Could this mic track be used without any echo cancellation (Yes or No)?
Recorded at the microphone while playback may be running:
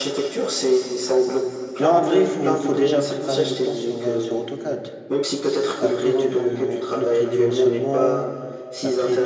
No